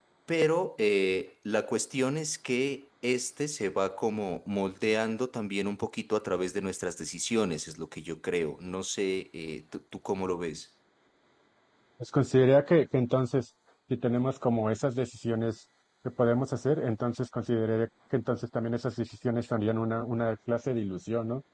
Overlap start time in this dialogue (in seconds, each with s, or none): none